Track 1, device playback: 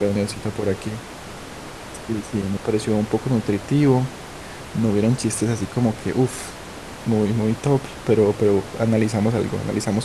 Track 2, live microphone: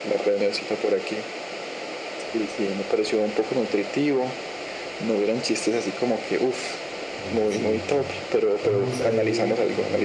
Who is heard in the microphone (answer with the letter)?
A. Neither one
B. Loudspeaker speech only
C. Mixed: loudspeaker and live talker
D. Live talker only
C